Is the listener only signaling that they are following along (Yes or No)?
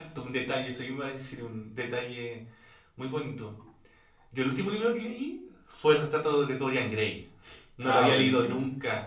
Yes